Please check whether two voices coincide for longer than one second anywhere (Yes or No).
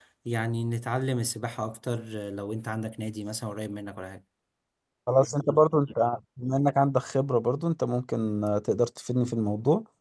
No